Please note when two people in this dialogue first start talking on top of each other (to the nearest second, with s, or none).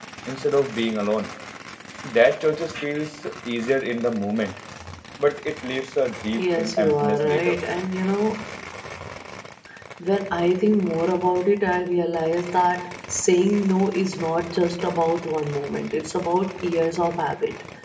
6 s